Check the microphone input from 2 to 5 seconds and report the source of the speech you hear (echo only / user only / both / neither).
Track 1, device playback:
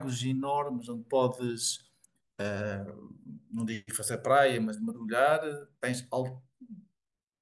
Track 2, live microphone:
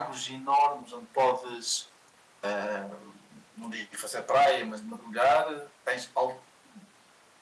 echo only